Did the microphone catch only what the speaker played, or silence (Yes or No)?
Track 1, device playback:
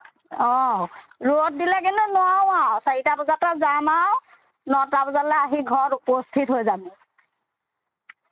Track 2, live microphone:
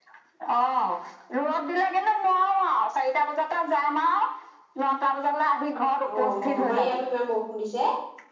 No